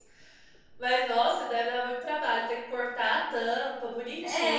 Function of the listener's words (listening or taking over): taking over